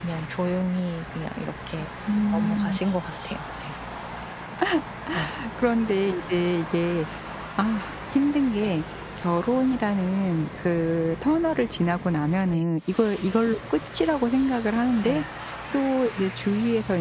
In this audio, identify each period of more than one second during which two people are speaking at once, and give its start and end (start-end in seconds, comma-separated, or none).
none